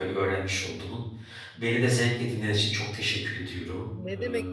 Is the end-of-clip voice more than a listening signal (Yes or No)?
Yes